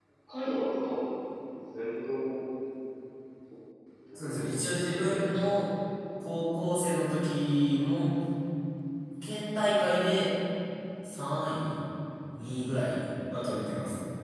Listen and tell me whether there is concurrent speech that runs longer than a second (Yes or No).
Yes